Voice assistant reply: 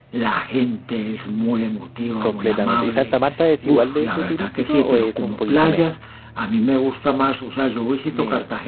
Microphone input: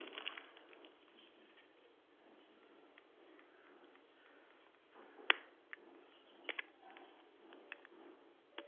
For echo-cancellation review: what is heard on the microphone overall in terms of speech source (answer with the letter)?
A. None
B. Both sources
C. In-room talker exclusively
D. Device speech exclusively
A